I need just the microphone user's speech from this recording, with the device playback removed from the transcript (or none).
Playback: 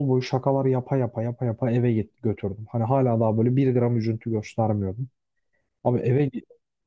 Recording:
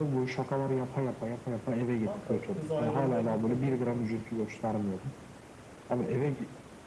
Kanka kız ayrılmayı kafaya koyup gelmiş.